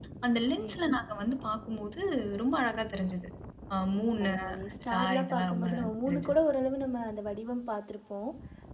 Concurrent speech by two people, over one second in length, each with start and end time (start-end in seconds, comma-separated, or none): 4.9-6.3